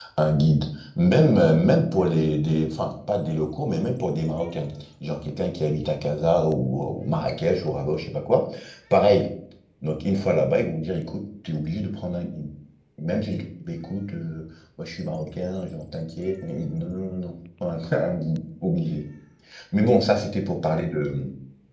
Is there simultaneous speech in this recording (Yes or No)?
No